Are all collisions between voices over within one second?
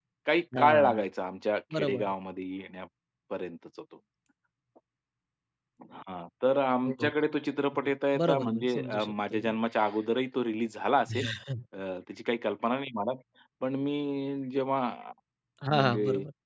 No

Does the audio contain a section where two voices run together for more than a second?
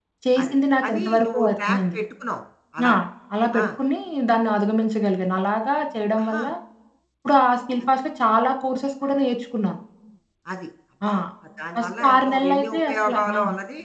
Yes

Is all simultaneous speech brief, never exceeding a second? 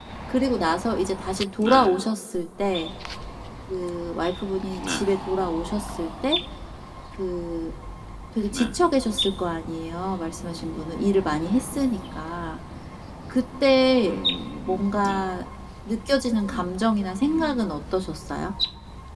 Yes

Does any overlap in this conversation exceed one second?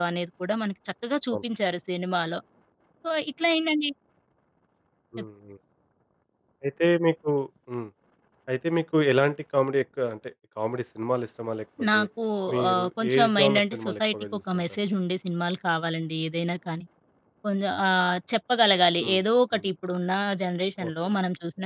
Yes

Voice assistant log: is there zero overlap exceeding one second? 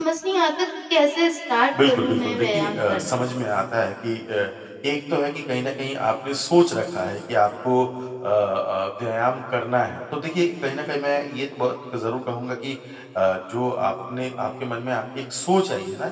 No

